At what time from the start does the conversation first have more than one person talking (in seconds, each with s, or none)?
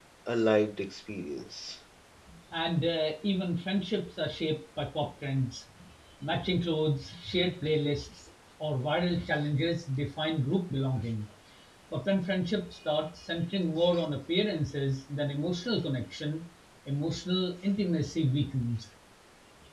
none